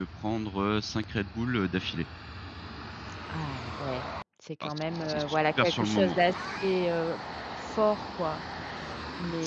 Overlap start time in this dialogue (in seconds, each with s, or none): 4.6 s